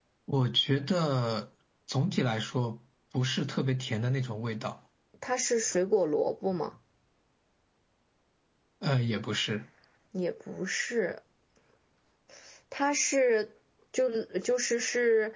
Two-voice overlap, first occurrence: none

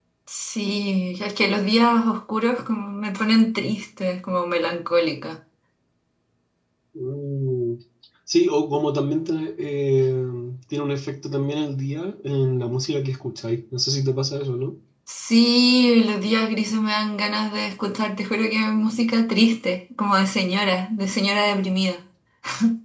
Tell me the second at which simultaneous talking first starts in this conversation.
none

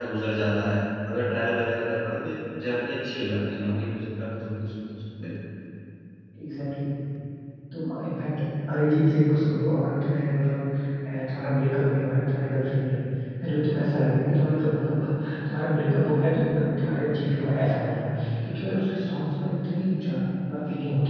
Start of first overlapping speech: none

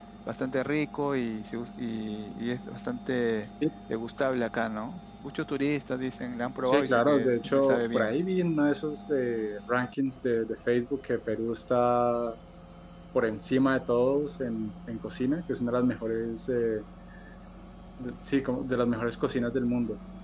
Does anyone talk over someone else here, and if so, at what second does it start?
6.7 s

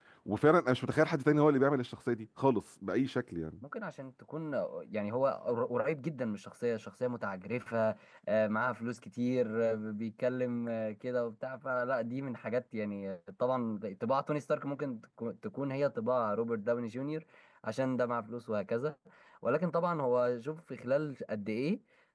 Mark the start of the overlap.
none

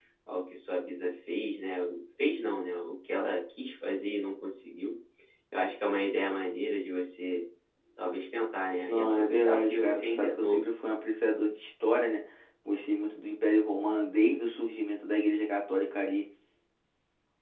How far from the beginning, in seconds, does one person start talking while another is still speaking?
8.9 s

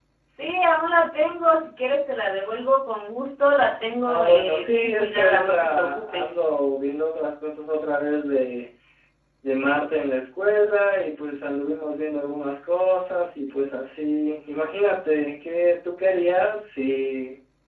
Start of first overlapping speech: 4.0 s

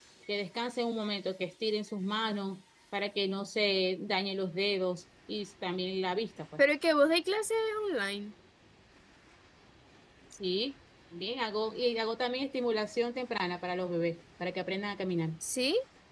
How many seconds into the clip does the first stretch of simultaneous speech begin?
none

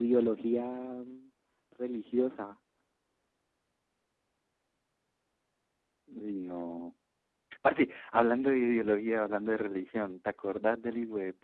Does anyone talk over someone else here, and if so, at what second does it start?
none

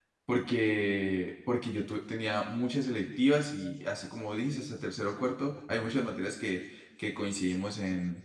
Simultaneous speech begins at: none

